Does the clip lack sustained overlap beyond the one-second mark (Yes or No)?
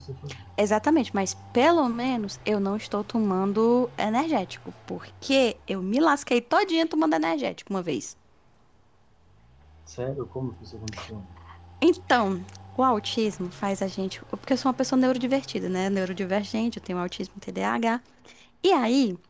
Yes